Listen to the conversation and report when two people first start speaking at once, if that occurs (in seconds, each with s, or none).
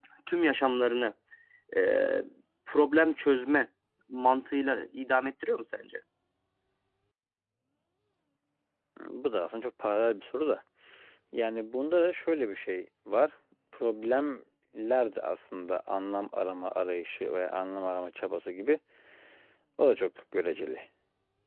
none